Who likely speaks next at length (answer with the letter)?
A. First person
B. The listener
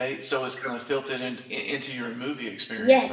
B